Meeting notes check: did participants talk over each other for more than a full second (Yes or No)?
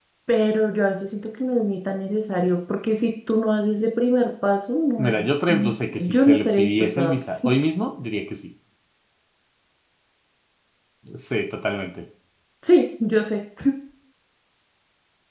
Yes